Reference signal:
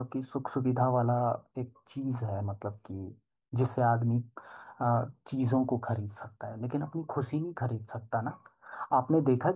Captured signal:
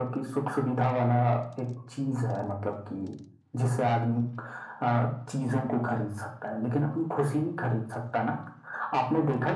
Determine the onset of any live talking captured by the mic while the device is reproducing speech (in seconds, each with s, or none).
none